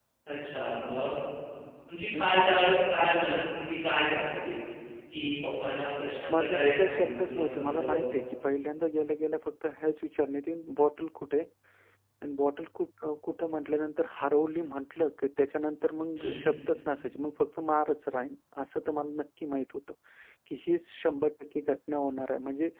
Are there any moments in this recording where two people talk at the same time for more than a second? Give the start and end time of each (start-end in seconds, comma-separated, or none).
6.3-8.0